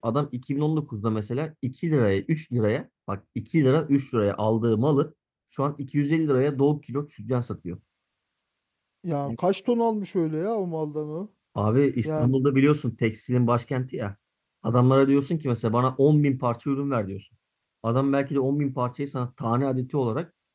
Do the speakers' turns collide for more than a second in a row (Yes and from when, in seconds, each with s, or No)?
No